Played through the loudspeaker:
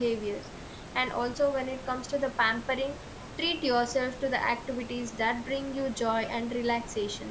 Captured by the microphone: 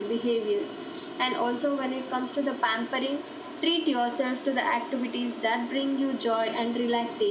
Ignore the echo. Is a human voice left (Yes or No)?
No